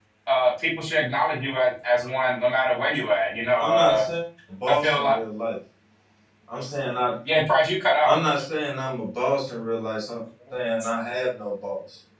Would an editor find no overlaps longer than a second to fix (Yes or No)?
Yes